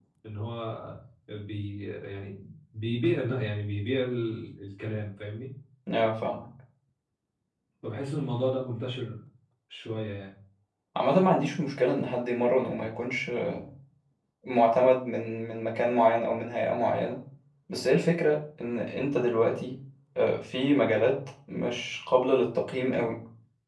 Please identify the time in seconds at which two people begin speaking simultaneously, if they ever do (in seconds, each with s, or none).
none